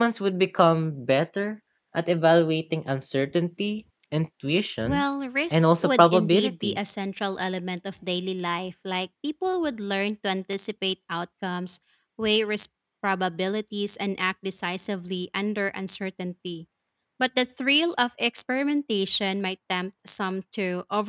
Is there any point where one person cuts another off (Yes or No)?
Yes